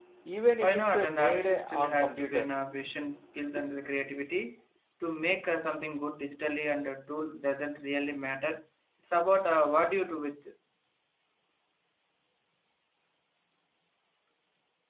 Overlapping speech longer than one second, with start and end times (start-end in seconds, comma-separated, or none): 0.6-2.5